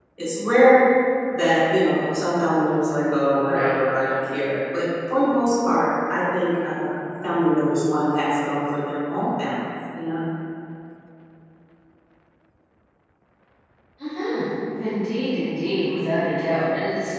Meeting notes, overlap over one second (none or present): none